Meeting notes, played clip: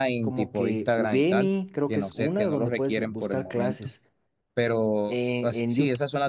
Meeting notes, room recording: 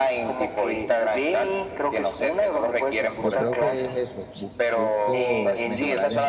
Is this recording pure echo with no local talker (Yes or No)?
No